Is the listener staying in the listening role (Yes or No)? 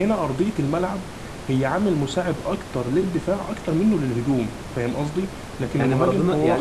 No